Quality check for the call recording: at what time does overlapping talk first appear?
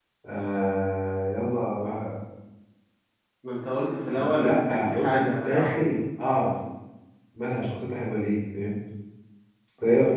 4.2 s

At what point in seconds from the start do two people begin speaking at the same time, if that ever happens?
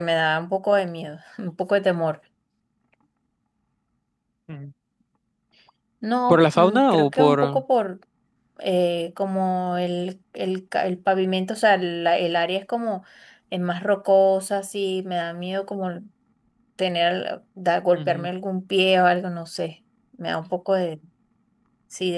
6.3 s

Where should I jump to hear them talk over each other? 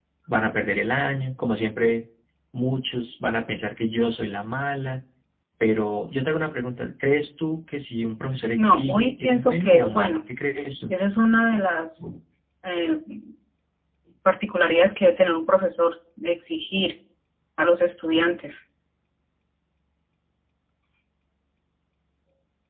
8.6 s

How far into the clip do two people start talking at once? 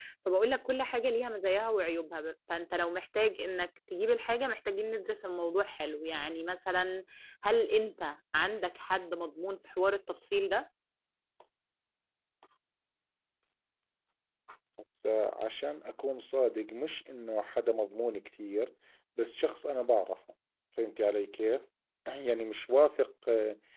none

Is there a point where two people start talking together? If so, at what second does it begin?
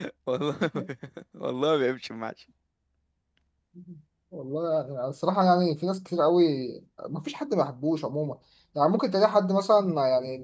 none

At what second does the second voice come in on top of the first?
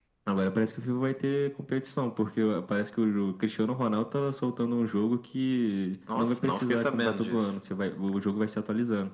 6.1 s

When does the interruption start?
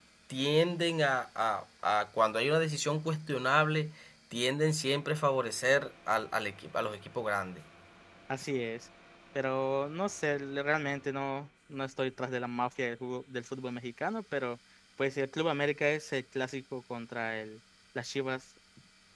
none

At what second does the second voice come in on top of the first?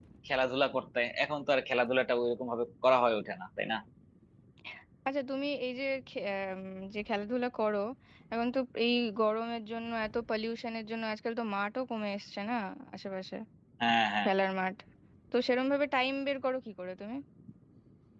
none

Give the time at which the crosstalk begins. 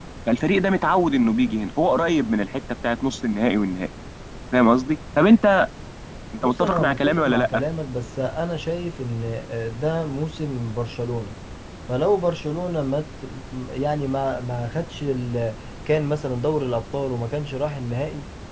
6.4 s

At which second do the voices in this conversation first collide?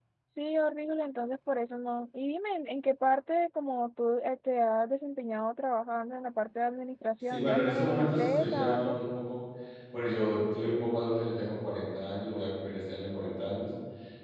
7.3 s

